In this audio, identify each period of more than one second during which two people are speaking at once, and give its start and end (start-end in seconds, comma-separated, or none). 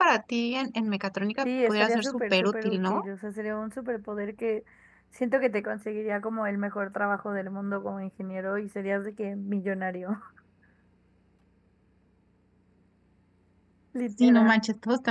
1.4-3.0